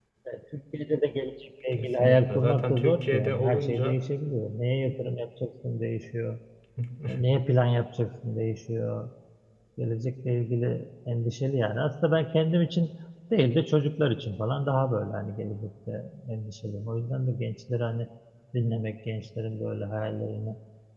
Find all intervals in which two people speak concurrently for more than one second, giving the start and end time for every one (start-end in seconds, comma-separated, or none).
1.7-4.0